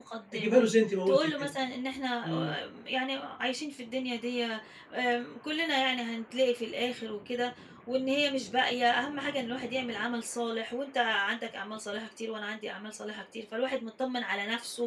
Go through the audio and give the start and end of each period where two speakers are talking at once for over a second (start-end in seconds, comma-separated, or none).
none